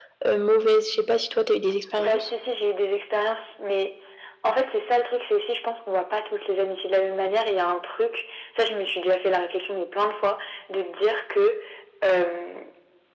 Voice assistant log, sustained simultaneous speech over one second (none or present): none